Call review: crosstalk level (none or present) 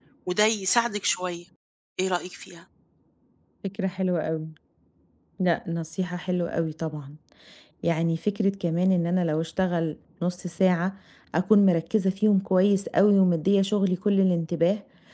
none